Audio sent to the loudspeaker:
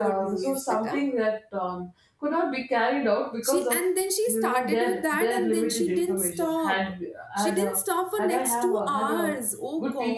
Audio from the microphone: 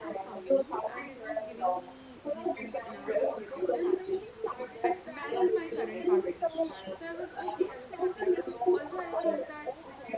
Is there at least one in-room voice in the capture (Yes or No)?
Yes